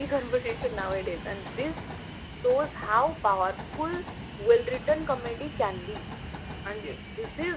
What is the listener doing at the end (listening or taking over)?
listening